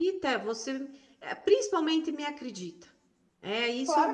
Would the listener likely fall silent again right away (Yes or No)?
No